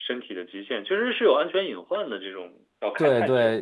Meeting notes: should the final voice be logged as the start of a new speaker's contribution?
Yes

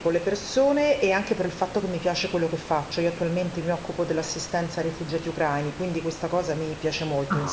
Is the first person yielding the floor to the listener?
Yes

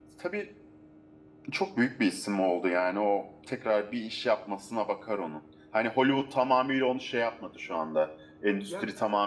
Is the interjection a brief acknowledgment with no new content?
Yes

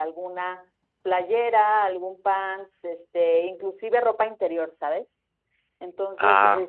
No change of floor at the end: Yes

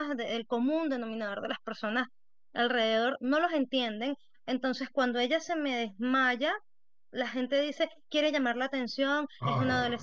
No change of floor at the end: Yes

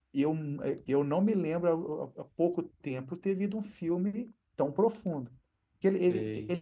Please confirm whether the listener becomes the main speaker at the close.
No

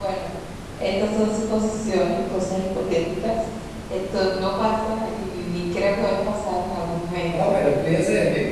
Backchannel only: No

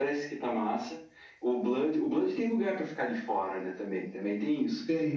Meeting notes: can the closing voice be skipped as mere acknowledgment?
No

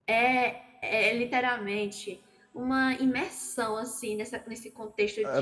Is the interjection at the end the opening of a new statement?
Yes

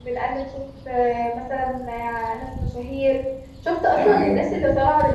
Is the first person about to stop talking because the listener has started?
No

